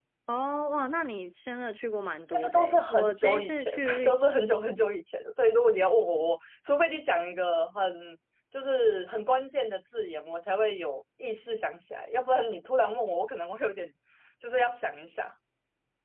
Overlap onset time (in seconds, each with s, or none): 2.3 s